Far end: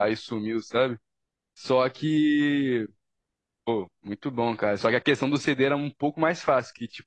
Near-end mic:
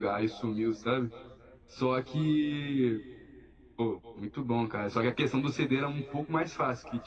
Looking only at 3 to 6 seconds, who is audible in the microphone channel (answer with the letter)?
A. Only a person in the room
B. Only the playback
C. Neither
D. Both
B